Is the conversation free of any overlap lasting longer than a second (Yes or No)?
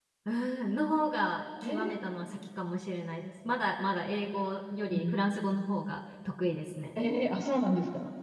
Yes